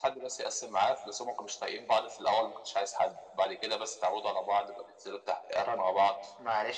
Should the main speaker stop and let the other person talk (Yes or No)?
Yes